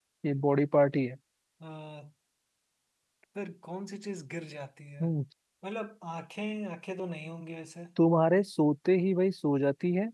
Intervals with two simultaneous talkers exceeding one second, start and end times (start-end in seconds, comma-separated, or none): none